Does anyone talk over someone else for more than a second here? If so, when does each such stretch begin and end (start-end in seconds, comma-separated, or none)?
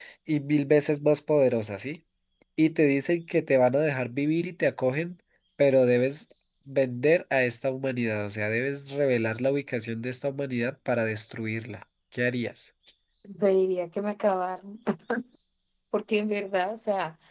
none